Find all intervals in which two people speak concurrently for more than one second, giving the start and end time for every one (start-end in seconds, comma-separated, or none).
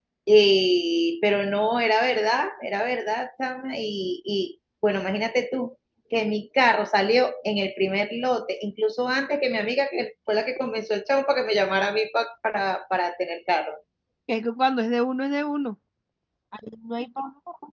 none